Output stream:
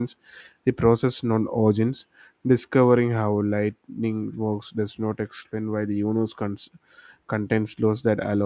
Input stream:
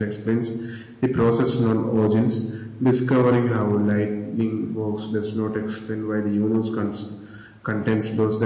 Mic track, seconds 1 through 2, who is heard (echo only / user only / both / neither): echo only